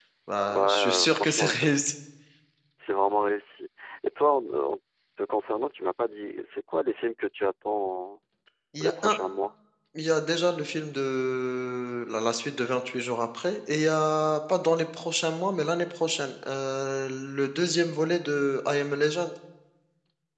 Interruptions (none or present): present